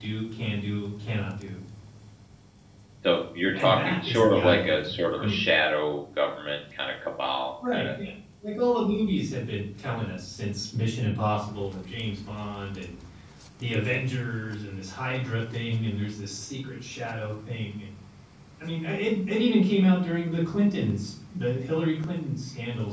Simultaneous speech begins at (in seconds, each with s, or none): 3.5 s